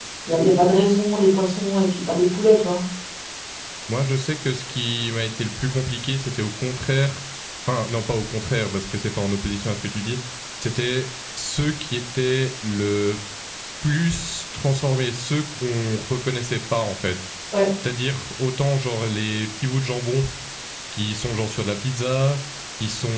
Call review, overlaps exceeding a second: none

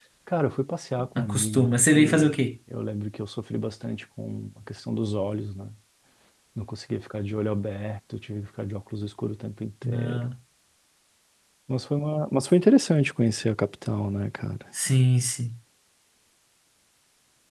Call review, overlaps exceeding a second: present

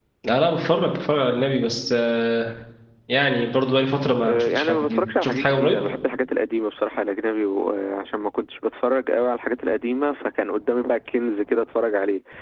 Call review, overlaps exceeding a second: present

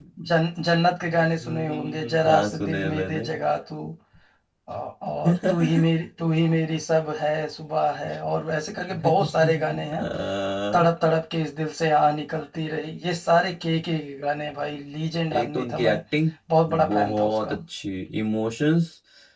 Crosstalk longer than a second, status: present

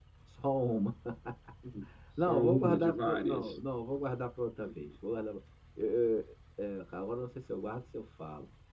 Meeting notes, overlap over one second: present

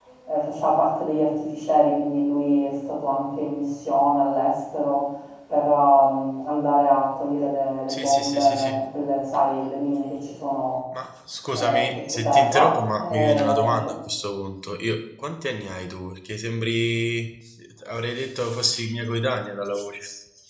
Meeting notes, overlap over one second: present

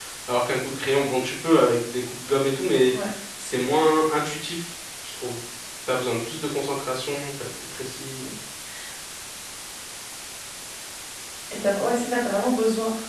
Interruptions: none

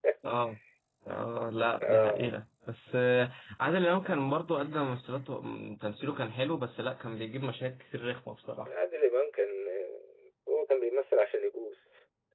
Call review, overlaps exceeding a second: none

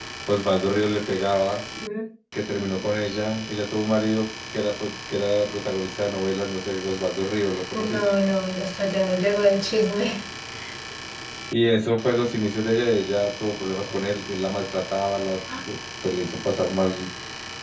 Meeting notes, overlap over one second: none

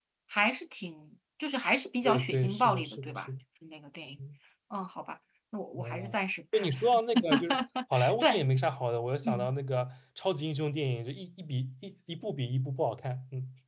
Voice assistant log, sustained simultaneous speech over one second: present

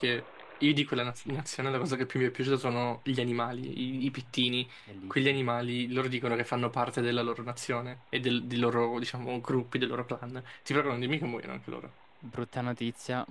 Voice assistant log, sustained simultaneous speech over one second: none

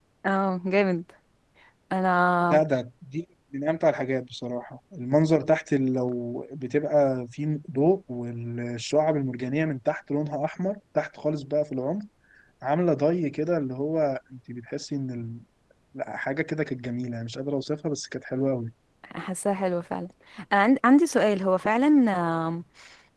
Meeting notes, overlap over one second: none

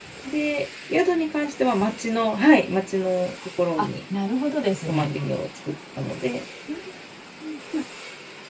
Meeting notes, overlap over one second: none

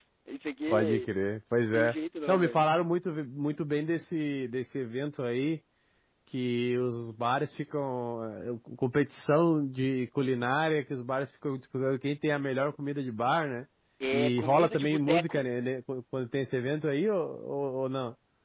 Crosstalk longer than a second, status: present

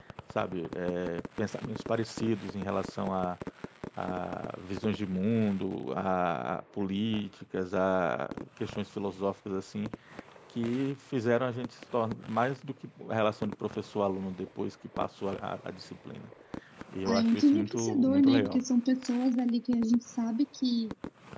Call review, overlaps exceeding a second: present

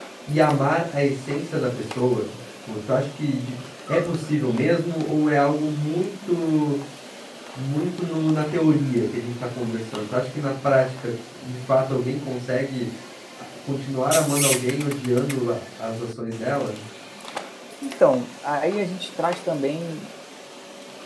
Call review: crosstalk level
none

